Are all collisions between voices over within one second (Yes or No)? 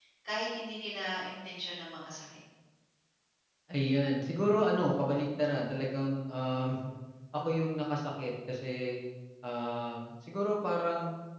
Yes